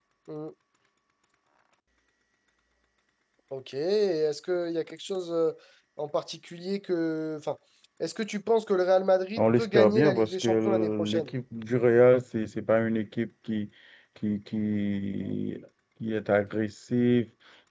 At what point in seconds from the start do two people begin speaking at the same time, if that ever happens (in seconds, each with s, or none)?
9.4 s